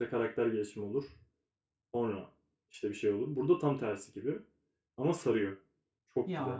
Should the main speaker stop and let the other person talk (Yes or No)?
Yes